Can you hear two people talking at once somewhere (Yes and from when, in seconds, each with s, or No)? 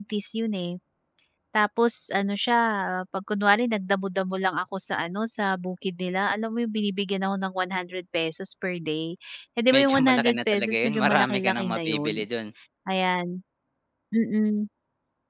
Yes, from 9.7 s